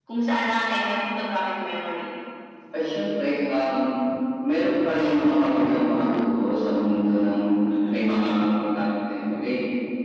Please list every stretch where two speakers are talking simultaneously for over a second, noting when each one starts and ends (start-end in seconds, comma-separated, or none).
none